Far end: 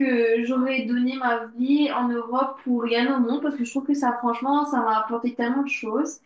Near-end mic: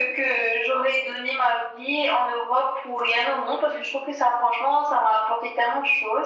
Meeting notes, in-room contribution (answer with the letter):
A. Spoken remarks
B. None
B